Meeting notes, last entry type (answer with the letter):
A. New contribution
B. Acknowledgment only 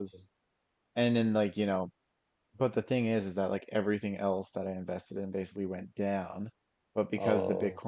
B